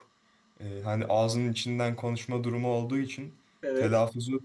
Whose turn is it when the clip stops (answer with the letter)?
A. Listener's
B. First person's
B